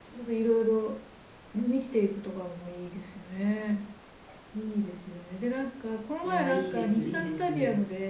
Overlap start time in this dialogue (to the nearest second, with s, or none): 6 s